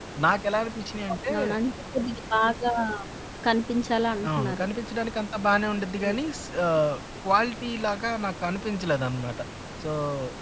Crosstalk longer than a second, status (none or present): none